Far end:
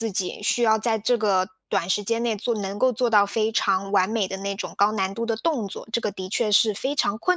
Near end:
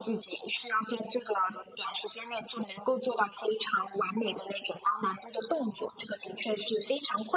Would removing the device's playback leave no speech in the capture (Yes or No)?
Yes